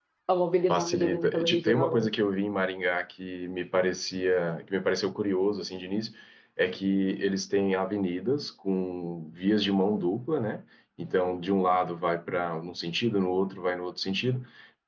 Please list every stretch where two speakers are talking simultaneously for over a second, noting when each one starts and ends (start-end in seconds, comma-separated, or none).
0.7-2.1